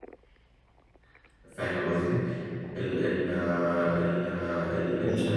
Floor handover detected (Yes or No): No